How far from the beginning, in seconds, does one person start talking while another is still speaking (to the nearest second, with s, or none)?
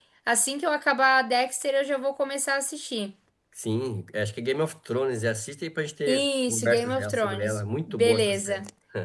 6 s